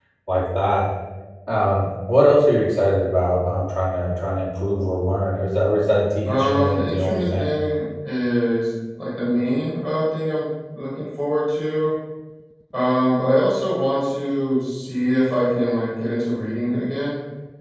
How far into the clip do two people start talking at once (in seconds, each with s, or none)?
6.3 s